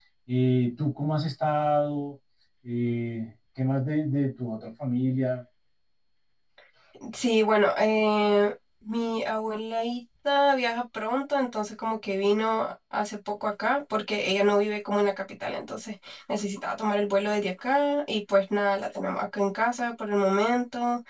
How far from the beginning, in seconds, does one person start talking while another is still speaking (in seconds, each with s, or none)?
none